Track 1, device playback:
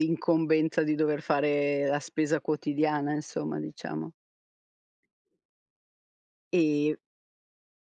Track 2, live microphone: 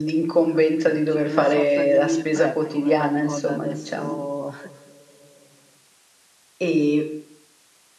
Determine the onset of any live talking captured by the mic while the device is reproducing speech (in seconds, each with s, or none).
0.5 s